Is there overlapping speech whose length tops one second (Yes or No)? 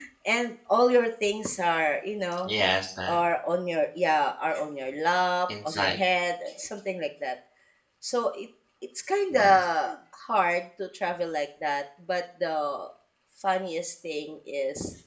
No